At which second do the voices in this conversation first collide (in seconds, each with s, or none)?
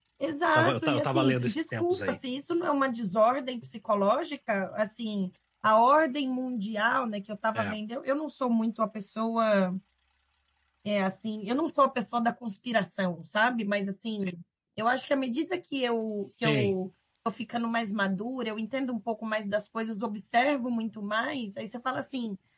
0.6 s